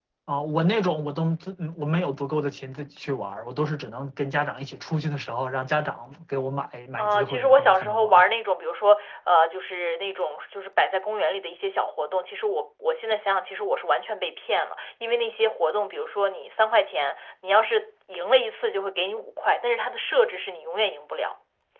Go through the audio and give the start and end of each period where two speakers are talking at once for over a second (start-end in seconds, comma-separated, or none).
7.0-8.2